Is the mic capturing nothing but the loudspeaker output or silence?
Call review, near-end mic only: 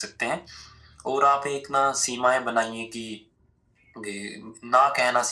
Yes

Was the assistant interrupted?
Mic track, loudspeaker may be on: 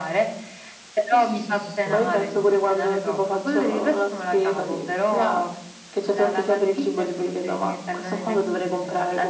Yes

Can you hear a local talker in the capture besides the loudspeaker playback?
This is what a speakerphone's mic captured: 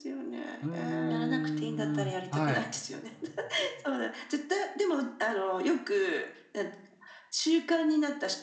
Yes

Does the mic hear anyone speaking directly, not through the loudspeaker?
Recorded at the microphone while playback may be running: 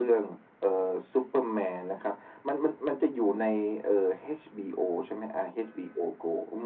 No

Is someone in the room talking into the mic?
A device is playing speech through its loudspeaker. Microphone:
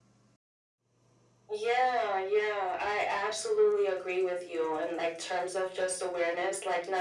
No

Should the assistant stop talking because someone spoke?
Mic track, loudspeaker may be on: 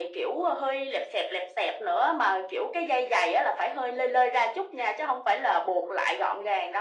No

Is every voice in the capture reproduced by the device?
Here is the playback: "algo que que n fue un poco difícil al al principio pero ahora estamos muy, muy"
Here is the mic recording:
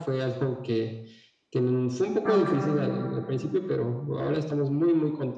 No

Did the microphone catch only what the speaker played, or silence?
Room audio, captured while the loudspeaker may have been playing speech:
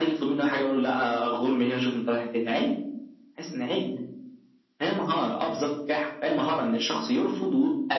Yes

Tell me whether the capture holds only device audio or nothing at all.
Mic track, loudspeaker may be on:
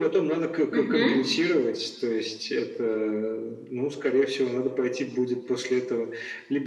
No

